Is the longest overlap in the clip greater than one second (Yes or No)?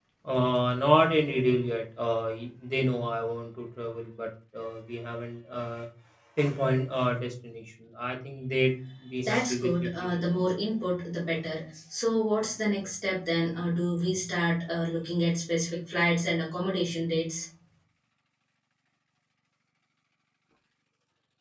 Yes